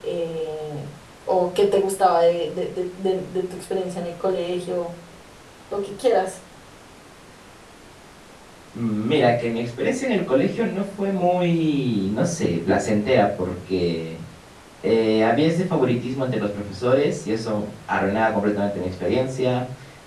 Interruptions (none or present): none